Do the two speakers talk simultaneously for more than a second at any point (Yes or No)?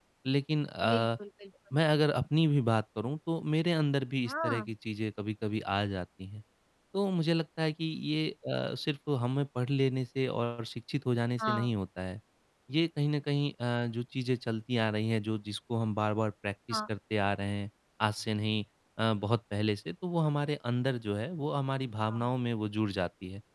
No